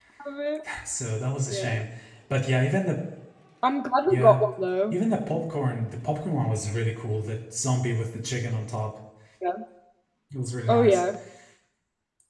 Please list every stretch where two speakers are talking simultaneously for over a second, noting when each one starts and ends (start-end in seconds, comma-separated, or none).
none